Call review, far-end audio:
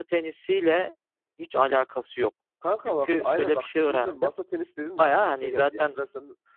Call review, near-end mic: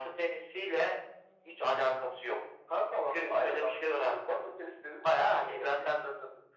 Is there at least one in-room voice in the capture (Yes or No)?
No